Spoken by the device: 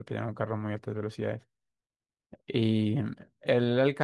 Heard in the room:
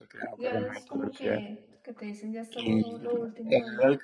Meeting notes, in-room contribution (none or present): present